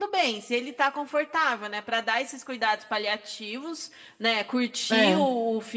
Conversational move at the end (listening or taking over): listening